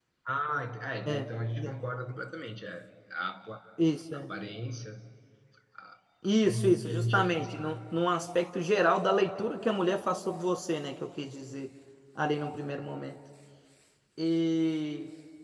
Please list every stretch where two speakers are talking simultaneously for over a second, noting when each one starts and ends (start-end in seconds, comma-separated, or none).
6.4-7.8